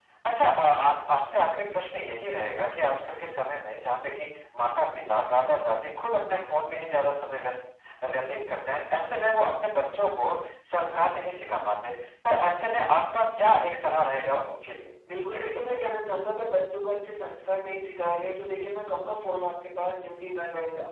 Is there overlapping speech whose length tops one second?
No

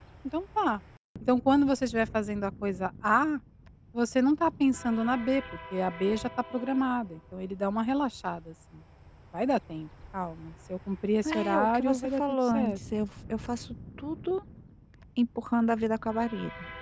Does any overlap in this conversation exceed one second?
Yes, from 11.2 s

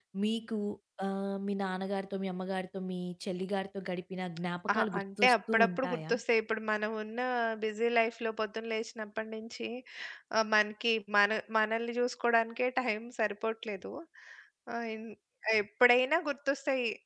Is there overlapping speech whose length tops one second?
Yes, from 4.7 s

